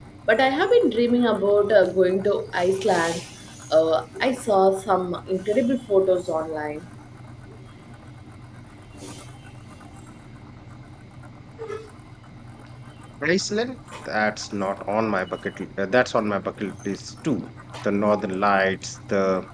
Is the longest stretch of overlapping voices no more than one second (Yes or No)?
Yes